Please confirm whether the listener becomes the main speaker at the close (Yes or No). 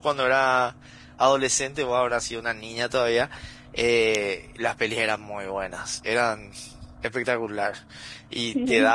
No